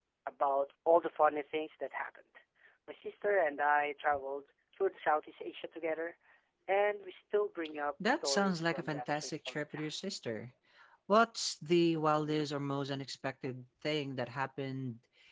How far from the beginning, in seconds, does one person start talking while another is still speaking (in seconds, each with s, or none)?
8.0 s